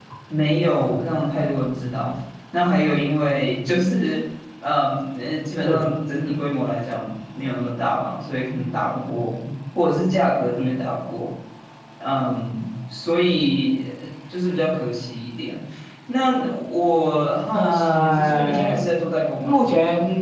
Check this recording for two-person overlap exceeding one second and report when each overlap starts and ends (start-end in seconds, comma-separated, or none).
17.5-18.7